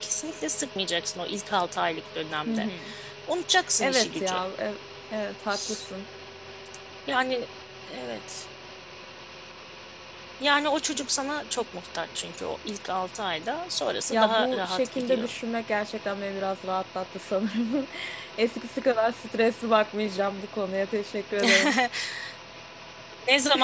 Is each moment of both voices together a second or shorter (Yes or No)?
No